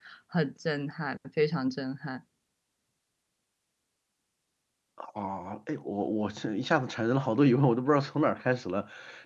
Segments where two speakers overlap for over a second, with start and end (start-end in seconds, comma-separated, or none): none